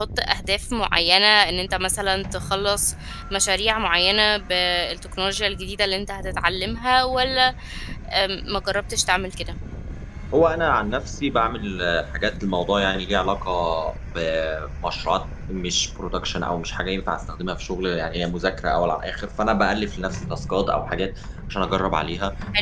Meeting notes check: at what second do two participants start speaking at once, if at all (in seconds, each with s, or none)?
none